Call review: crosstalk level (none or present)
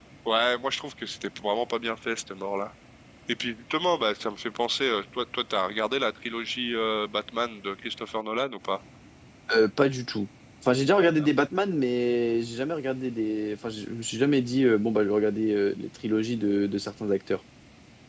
none